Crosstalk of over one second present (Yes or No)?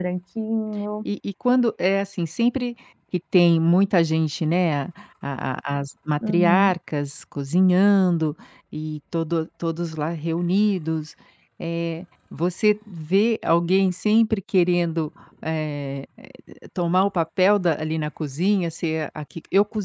No